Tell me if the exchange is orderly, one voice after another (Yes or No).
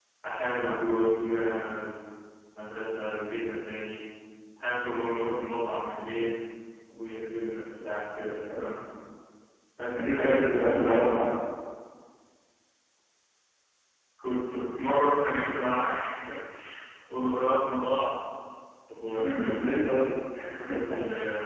No